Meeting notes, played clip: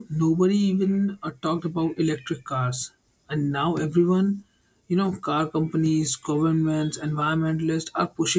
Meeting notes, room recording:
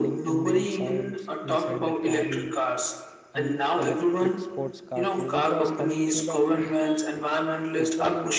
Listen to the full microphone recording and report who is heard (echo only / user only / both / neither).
both